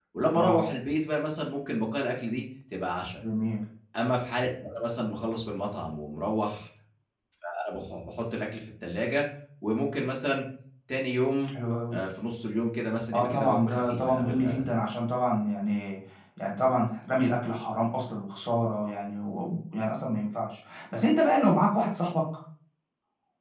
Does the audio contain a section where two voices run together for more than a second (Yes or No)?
Yes